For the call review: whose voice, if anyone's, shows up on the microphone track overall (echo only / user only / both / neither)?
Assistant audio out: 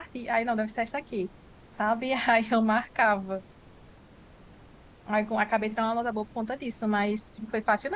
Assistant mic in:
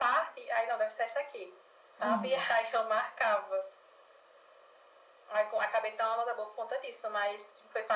both